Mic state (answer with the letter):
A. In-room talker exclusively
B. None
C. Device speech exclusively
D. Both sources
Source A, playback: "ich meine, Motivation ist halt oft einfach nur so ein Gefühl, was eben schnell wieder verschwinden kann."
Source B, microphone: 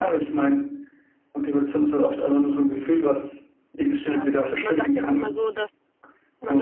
D